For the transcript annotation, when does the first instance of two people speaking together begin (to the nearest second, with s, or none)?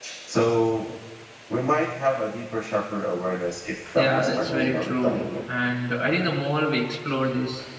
4 s